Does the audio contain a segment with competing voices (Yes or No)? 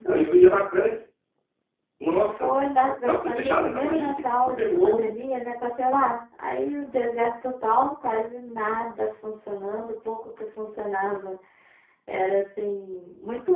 Yes